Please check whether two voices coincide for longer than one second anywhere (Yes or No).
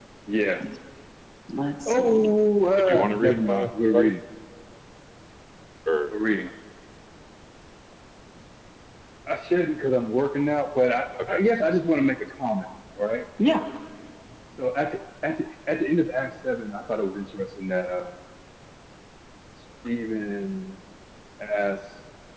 Yes